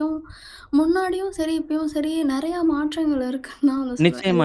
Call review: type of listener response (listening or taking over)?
taking over